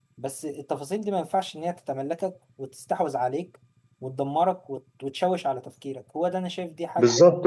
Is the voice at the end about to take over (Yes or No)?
Yes